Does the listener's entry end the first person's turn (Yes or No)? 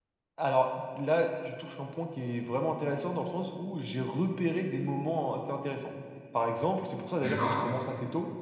No